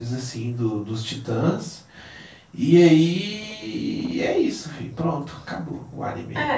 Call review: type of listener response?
taking over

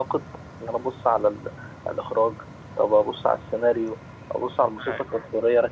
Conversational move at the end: listening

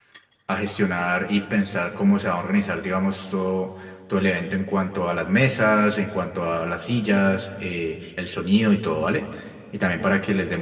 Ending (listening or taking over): listening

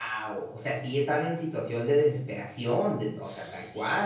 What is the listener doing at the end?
taking over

